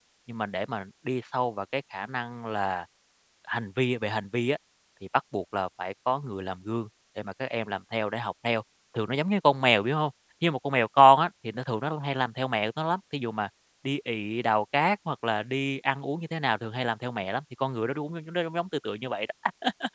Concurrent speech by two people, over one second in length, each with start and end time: none

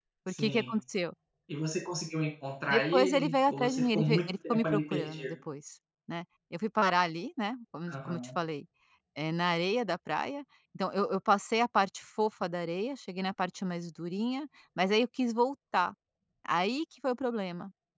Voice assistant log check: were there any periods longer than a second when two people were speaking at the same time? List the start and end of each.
2.7-5.3

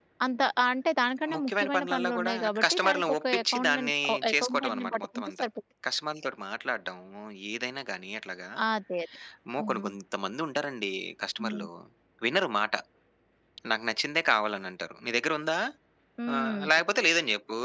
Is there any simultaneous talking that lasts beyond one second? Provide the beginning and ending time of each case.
1.3-5.4

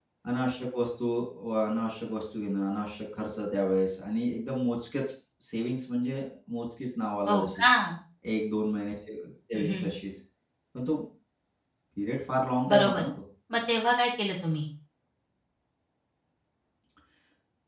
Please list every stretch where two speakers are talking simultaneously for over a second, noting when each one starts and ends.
none

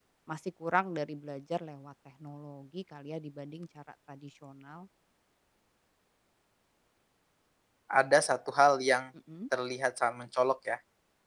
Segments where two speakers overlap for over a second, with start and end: none

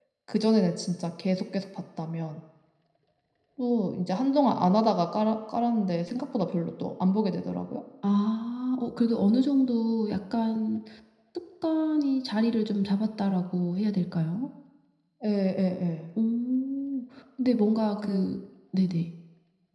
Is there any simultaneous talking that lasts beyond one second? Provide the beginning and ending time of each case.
none

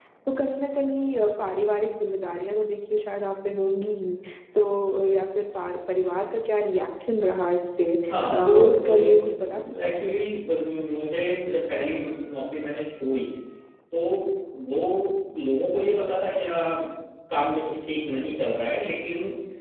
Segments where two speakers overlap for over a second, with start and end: 8.3-10.1

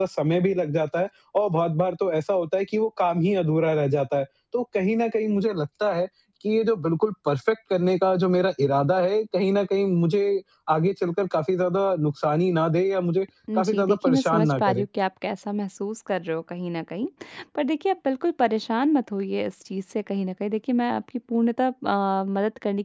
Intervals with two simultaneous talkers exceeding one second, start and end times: 13.6-14.8

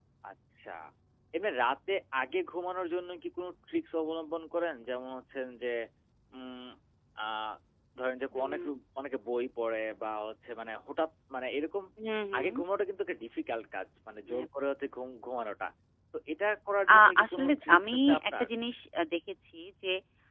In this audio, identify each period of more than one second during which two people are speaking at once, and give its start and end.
16.9-18.5

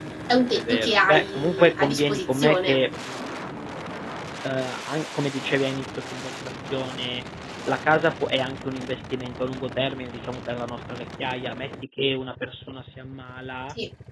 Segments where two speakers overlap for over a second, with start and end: 0.6-2.8

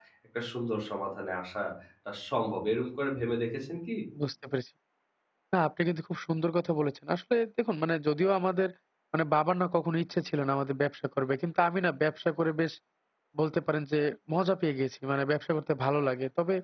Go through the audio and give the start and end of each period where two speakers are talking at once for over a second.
none

